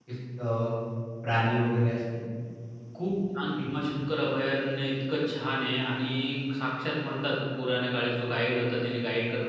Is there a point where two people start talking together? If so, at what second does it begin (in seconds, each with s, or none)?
none